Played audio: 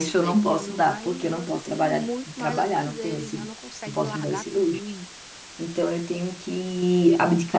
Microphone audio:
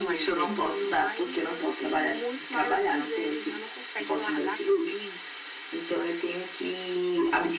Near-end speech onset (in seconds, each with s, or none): none